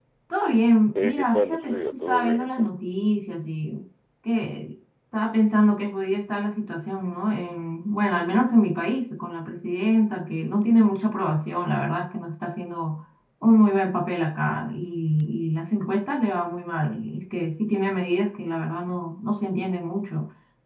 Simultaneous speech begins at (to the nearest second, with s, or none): 1 s